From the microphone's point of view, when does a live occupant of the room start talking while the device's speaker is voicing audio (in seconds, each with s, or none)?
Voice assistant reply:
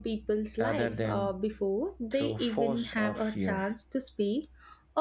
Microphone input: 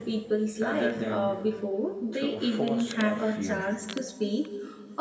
none